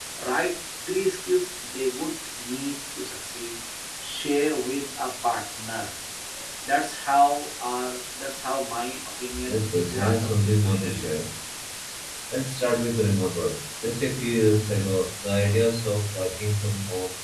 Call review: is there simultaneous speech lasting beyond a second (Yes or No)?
Yes